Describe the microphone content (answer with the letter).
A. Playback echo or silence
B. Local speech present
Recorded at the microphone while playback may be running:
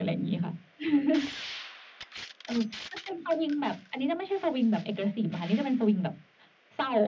A